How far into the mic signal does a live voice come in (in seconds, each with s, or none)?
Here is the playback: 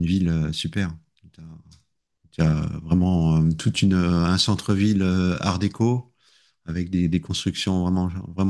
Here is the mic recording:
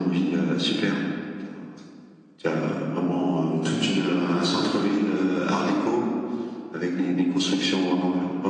none